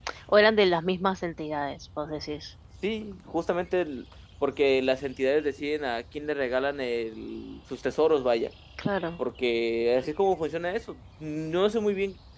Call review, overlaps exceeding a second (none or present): none